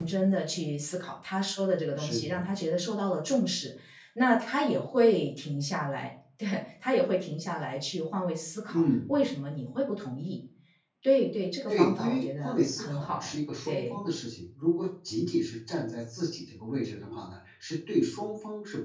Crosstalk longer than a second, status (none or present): present